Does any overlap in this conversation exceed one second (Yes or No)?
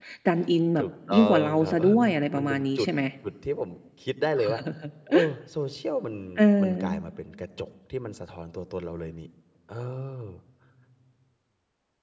Yes